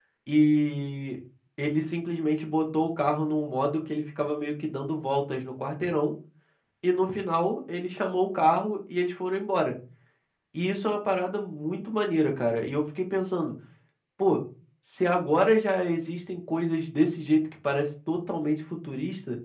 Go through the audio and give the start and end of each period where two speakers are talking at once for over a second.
none

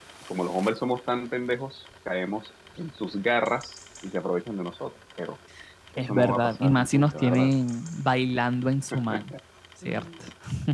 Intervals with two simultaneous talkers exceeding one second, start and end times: 6.0-7.5

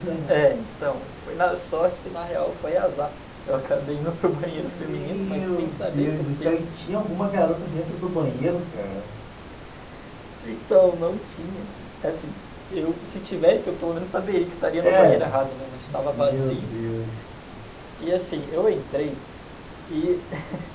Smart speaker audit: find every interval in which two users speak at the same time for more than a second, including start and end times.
4.4-6.5

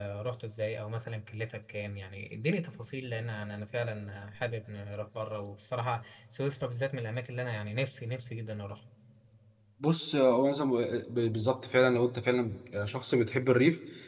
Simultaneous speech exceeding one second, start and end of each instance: none

